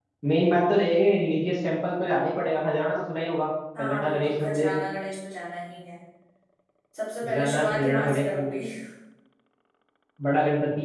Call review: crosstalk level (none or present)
present